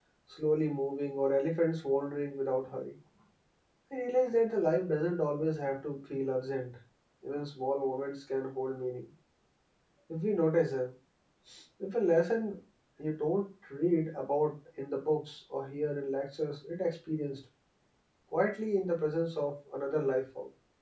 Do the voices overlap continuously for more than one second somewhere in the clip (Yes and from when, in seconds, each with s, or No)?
No